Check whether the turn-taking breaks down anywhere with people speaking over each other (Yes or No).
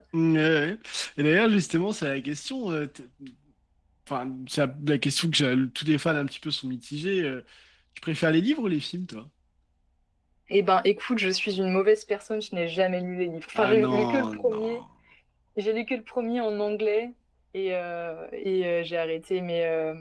Yes